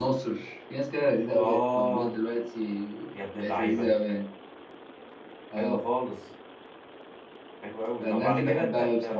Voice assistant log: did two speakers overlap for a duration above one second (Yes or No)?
Yes